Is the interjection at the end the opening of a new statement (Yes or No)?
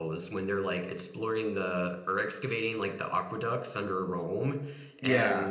No